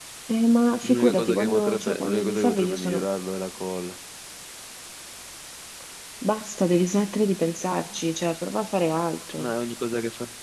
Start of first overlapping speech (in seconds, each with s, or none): 0.8 s